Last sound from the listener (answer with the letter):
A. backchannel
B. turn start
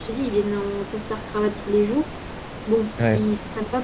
A